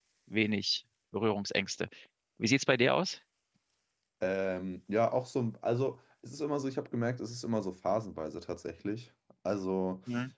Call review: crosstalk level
none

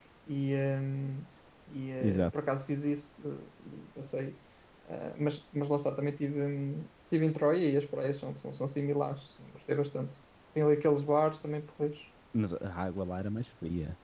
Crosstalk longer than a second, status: none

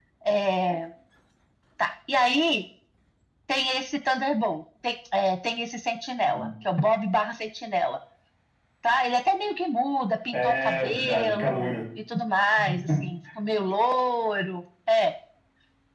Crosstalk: present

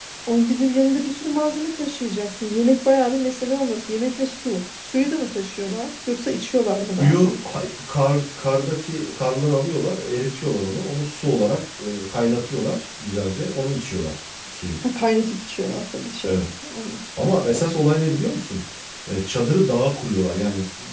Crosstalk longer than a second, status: none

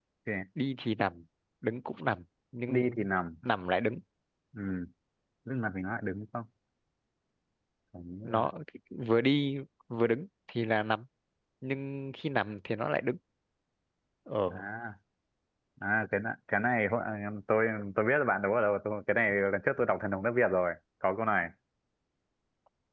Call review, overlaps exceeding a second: none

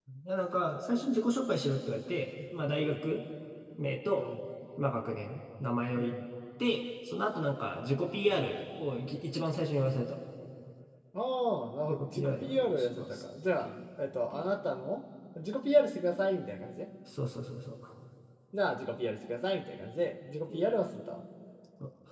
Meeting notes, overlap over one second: present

